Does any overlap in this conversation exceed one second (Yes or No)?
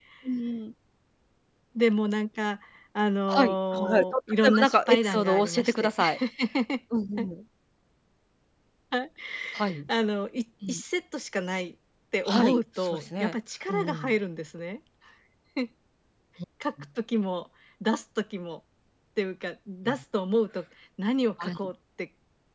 Yes